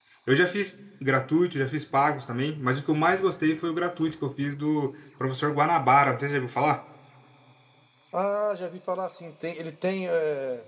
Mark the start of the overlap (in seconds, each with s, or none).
none